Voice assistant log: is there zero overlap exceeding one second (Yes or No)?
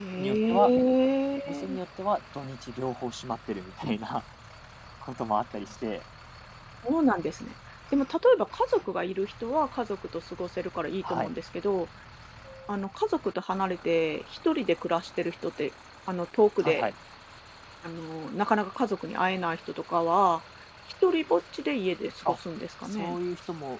Yes